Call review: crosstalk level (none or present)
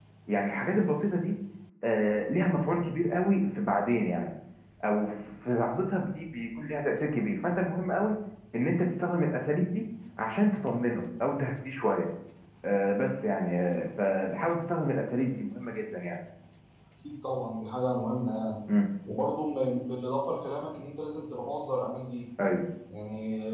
none